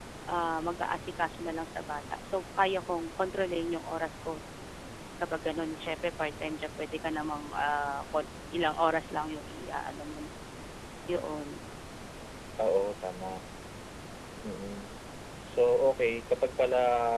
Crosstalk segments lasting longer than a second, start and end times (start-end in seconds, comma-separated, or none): none